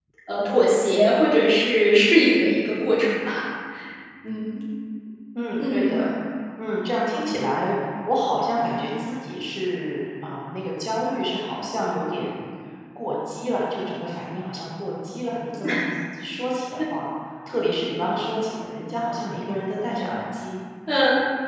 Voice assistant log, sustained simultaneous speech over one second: none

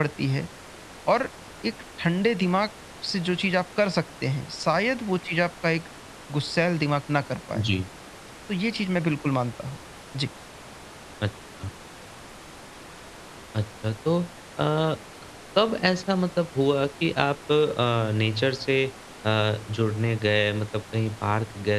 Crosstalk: none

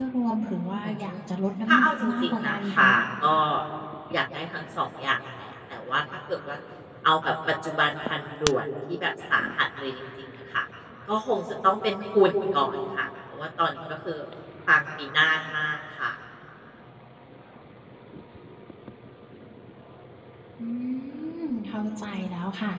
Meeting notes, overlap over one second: present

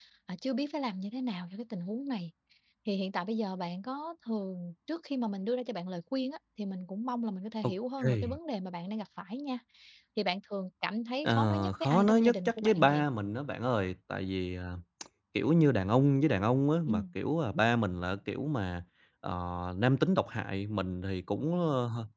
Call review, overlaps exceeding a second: present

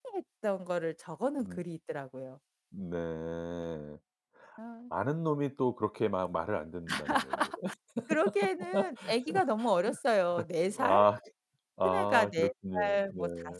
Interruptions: present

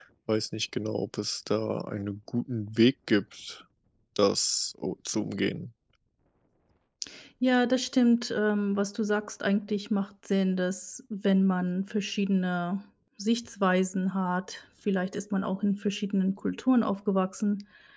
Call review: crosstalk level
none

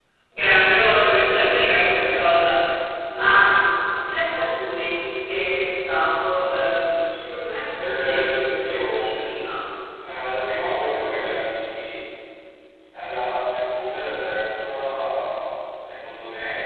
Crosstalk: present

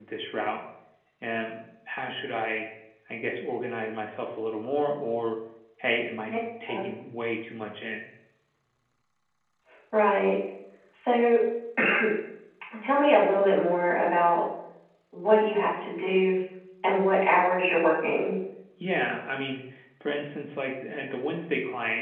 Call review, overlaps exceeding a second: none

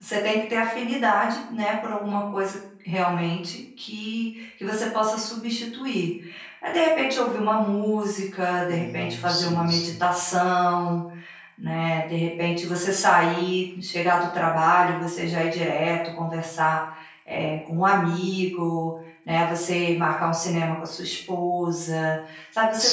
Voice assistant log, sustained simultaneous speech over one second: present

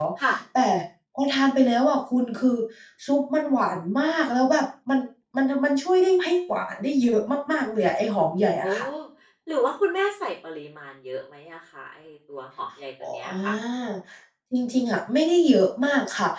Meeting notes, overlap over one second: none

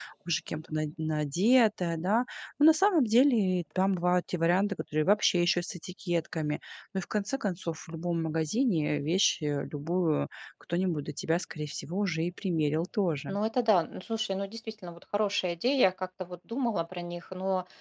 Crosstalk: none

